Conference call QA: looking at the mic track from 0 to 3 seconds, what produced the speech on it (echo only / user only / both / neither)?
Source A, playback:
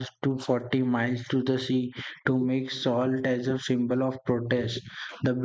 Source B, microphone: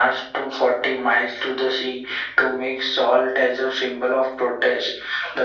echo only